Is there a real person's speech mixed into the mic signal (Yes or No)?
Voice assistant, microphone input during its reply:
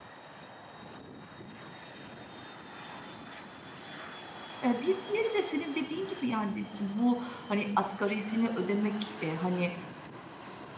Yes